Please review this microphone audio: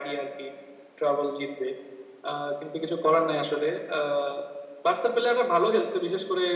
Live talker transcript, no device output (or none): none